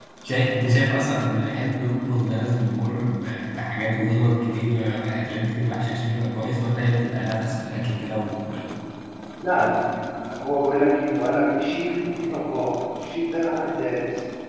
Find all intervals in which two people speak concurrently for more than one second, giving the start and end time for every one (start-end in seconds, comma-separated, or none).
none